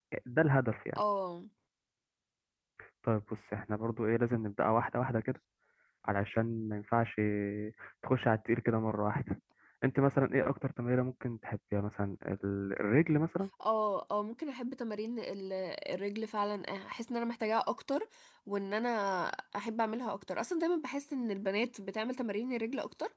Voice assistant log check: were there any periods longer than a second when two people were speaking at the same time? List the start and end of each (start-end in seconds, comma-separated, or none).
none